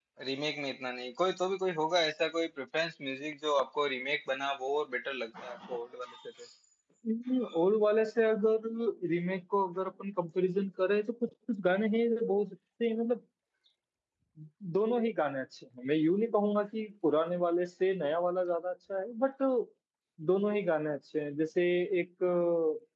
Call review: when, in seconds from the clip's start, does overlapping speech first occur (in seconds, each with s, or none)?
none